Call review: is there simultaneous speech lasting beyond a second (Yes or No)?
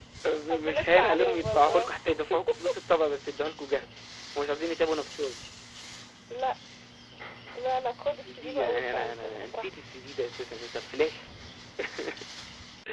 Yes